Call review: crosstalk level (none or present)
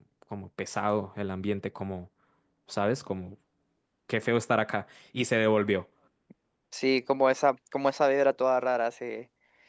none